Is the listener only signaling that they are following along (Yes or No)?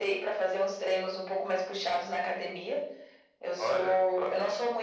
Yes